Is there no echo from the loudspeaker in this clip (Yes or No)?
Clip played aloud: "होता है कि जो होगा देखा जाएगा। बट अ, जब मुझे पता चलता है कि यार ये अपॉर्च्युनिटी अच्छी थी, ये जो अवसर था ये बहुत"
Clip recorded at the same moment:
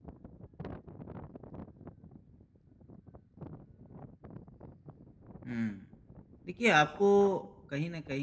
Yes